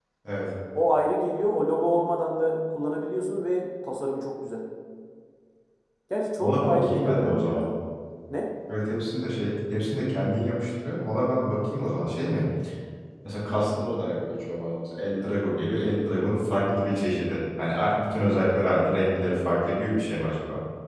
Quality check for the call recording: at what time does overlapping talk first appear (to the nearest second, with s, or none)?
6 s